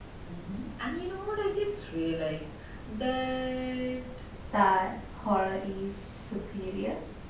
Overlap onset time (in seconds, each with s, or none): none